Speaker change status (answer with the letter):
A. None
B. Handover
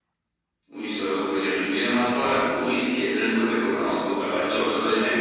B